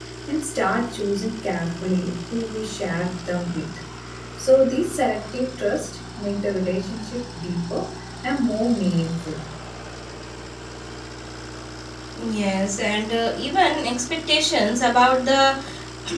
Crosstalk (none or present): none